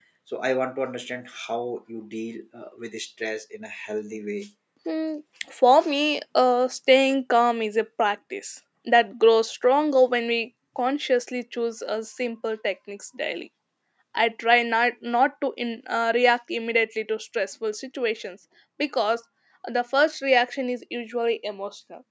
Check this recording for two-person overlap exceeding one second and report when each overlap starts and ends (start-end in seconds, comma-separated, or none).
none